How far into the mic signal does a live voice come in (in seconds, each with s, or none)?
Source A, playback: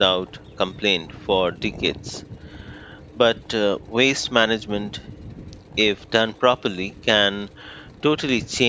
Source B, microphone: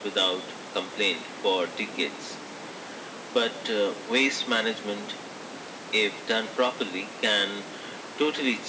none